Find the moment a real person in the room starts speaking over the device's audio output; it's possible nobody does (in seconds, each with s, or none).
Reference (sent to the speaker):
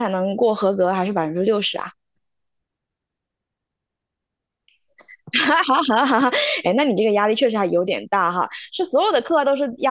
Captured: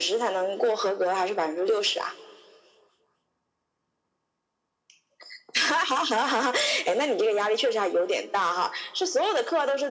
none